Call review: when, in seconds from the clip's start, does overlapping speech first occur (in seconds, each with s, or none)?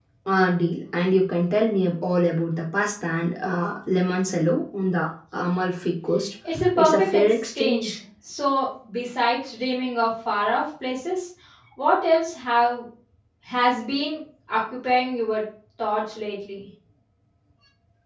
6.8 s